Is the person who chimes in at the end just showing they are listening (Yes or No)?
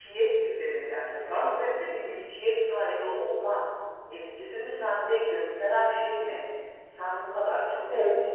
Yes